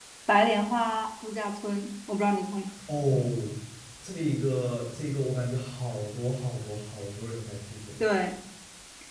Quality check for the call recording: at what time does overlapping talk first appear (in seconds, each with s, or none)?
none